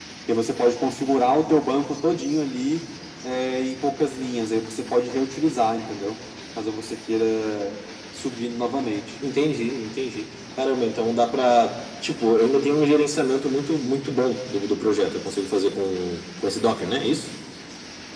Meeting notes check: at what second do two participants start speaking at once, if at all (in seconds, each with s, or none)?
none